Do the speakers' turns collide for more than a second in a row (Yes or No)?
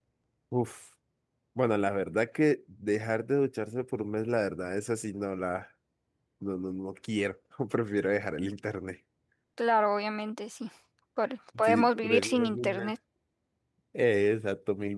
Yes